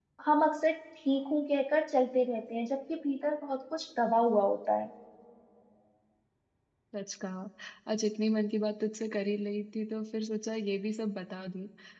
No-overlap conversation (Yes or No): Yes